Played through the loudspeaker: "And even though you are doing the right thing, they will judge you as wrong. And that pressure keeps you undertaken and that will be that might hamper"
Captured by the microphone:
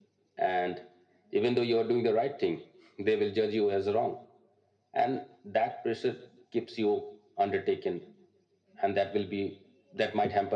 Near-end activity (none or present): none